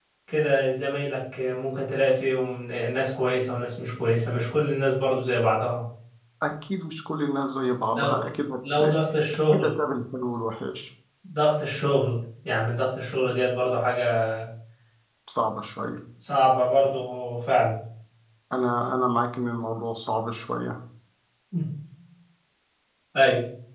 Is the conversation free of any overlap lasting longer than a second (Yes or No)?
Yes